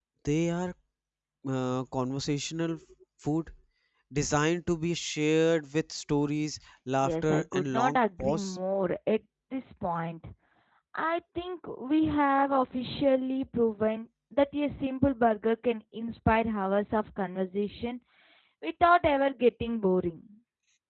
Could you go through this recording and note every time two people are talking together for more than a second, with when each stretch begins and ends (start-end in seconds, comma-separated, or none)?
7.1-8.6